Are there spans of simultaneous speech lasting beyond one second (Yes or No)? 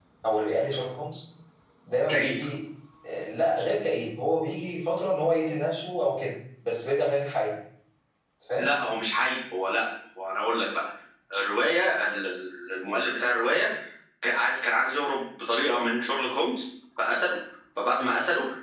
No